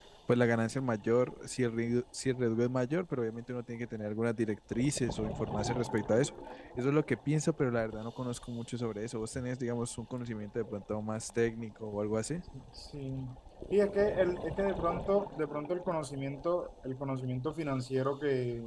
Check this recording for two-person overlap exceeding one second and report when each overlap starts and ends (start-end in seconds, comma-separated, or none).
none